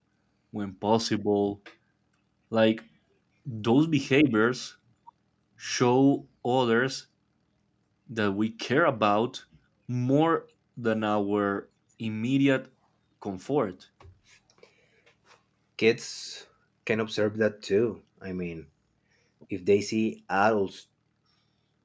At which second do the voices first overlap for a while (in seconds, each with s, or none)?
none